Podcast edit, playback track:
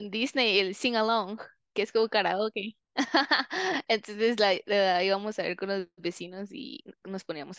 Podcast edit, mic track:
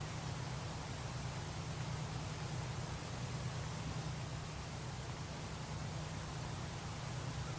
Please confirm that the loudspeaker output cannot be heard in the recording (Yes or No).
Yes